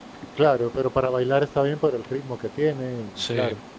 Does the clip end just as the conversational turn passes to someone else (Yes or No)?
No